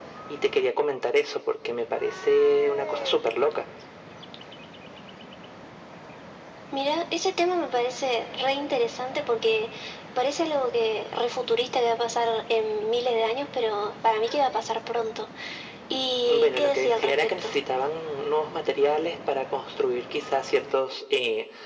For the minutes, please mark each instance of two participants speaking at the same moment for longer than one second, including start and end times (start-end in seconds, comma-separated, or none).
16.2-17.5